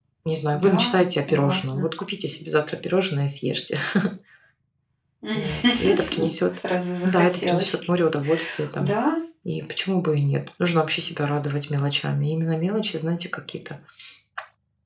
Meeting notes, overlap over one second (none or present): present